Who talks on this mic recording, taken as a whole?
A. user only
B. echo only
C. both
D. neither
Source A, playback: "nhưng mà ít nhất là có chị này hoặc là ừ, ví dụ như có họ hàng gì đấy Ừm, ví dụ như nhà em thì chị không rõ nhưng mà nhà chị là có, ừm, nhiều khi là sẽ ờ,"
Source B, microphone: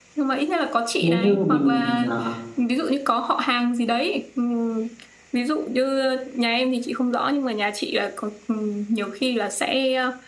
C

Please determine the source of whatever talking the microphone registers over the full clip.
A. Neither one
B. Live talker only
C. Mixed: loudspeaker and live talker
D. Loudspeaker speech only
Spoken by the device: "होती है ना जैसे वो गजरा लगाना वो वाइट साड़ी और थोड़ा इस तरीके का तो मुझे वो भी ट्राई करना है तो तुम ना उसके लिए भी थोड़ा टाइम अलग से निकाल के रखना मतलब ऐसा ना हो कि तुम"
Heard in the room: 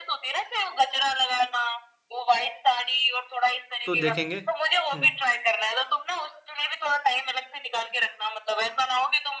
C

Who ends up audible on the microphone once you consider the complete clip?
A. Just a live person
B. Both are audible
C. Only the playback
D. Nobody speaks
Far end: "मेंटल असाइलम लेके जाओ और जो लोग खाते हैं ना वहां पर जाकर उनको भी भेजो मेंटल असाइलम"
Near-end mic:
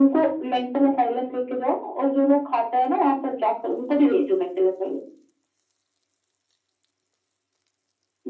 C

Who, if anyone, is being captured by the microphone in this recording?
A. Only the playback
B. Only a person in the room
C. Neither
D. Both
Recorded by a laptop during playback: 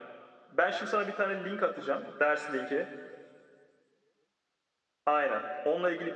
A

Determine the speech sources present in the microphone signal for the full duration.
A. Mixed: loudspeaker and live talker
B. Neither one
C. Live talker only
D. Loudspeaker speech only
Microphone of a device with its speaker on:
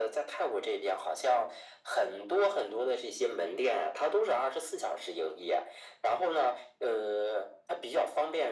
D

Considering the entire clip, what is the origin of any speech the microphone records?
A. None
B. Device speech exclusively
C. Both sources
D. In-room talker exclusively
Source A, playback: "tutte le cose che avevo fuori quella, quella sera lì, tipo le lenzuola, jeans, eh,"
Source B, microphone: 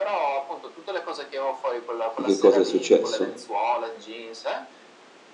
C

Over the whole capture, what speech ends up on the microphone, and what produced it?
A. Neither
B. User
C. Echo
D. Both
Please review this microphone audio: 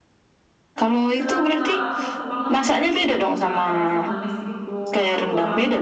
D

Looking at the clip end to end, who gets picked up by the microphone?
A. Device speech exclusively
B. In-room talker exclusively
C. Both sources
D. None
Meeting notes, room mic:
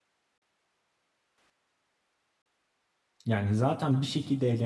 B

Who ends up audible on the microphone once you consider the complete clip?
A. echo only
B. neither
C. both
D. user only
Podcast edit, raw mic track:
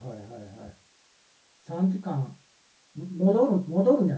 D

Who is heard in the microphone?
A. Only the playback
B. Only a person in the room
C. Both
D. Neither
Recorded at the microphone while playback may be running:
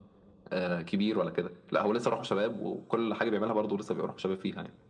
A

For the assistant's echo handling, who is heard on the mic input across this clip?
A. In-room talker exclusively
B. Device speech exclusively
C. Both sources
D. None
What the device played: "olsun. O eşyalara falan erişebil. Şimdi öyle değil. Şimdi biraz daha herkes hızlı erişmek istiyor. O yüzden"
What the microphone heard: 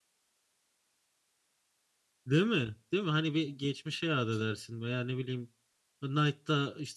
A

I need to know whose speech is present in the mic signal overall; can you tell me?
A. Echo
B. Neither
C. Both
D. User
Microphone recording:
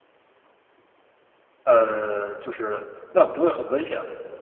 D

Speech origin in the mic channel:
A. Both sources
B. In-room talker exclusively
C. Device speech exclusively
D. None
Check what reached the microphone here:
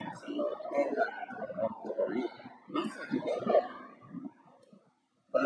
C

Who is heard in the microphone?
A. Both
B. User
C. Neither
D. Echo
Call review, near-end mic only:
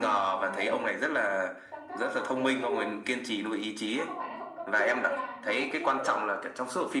A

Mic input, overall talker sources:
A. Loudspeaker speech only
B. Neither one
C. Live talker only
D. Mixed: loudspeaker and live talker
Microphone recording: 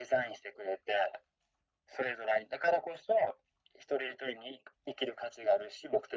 A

